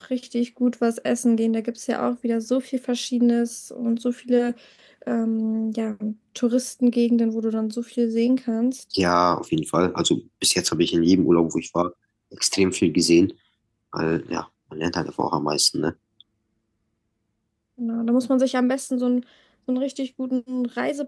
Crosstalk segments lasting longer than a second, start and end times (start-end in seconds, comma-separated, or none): none